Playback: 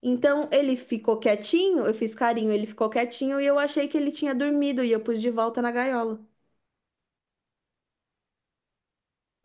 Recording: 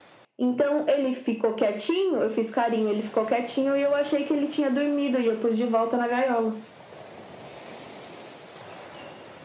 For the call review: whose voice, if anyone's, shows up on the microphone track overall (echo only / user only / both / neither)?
echo only